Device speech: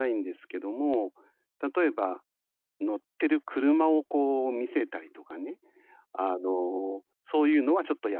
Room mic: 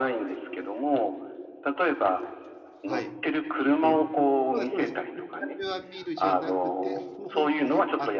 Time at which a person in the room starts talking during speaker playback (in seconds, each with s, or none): 2.8 s